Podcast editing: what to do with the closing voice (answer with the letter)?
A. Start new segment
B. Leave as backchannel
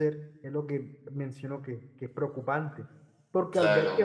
B